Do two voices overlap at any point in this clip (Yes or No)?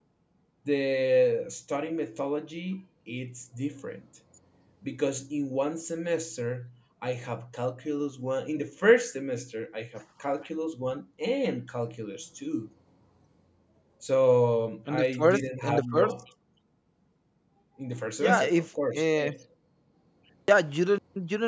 Yes